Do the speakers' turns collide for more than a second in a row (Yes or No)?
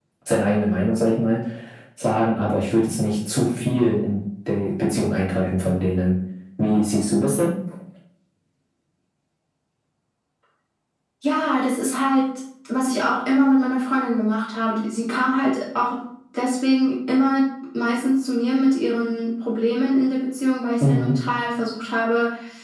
No